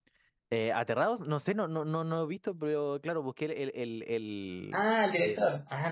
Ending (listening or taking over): taking over